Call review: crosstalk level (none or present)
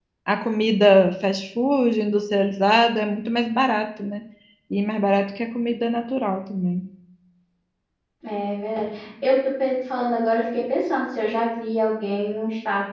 none